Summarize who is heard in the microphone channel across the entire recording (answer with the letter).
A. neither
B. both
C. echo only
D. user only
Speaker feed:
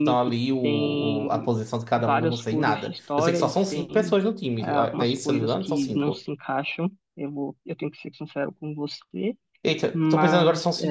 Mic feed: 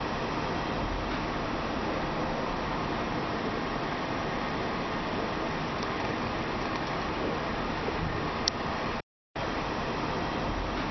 A